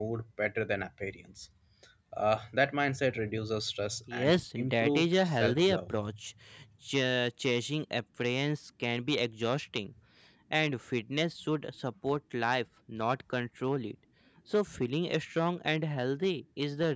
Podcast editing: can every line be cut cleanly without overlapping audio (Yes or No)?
No